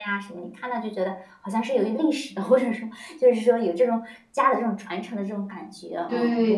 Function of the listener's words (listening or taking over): taking over